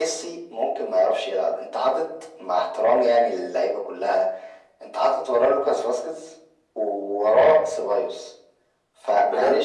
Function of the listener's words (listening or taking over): taking over